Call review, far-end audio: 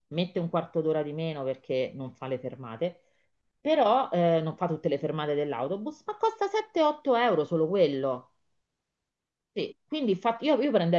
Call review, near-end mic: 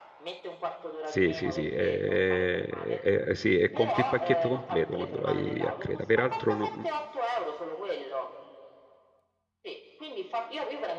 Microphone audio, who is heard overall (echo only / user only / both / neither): both